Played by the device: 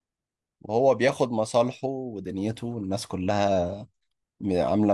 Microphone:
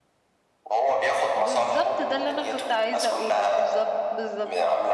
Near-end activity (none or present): present